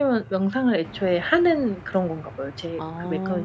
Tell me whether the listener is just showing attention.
No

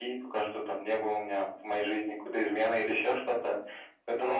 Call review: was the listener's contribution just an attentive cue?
Yes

